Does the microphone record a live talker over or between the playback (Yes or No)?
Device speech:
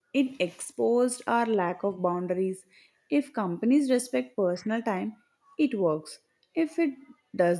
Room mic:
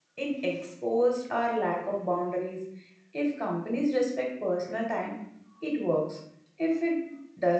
No